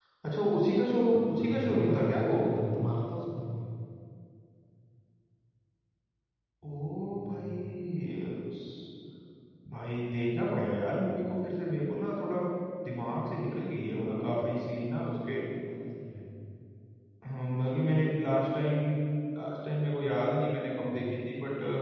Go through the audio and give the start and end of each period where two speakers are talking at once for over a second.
1.1-2.3

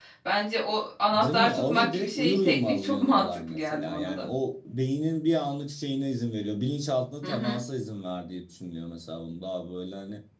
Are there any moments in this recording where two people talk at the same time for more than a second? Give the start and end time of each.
1.1-4.2

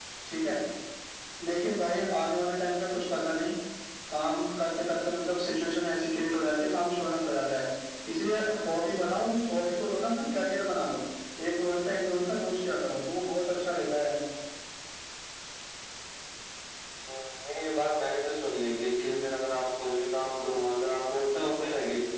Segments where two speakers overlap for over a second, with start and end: none

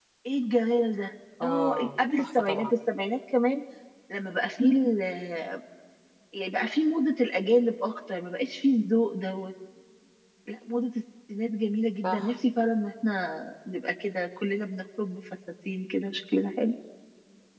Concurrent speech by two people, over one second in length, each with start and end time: 1.4-2.7

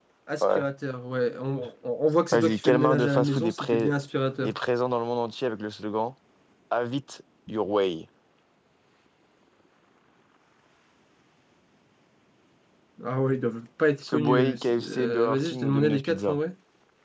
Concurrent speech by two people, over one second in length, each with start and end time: 2.3-3.9, 14.1-16.4

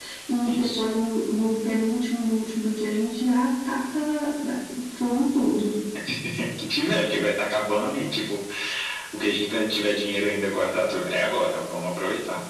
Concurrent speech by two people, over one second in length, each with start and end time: none

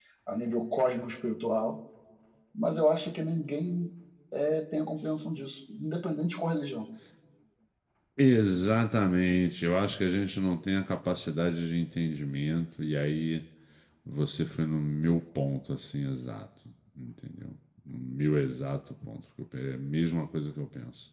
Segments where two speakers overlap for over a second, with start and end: none

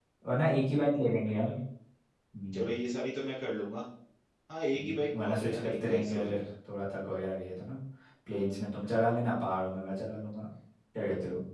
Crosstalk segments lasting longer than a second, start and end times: 4.7-6.4

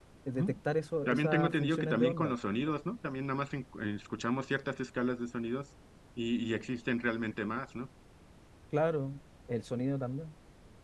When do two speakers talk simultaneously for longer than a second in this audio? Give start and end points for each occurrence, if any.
1.0-2.3

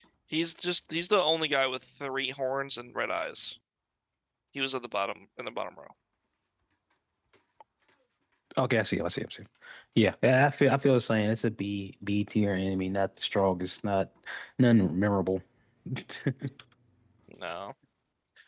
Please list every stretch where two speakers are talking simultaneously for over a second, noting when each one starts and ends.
none

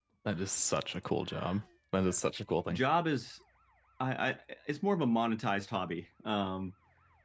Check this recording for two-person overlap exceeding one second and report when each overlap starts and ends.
none

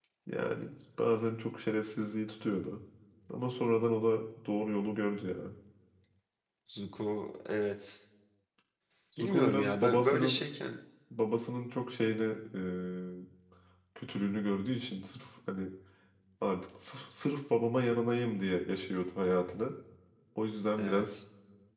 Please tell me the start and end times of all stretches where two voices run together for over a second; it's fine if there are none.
9.2-10.4

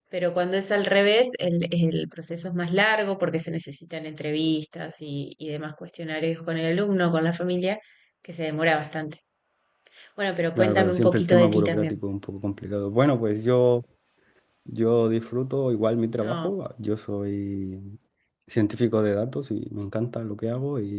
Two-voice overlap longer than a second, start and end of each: 10.6-11.9

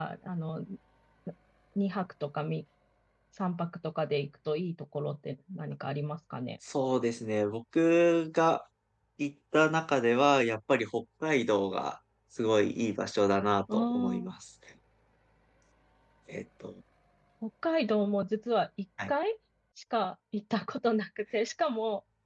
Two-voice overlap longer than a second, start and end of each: none

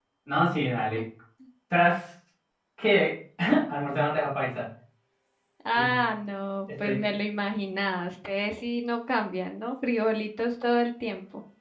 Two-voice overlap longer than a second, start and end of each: none

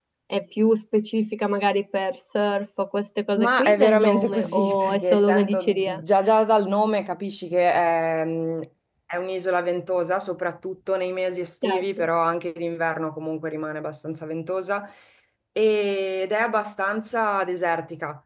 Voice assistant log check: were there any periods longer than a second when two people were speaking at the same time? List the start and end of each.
3.4-6.0

